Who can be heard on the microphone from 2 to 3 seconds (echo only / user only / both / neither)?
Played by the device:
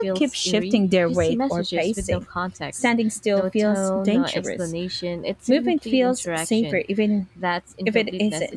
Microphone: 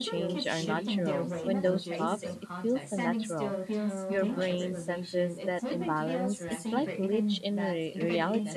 both